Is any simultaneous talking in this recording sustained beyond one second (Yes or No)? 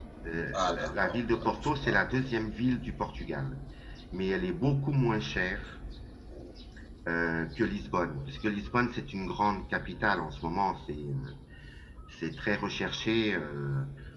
Yes